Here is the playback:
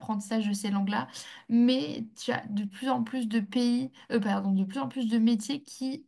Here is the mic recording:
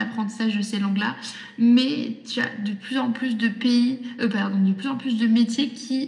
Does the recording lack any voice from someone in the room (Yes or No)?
Yes